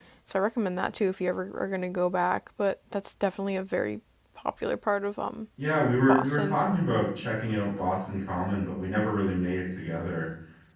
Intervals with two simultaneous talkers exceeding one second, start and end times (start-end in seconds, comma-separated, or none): none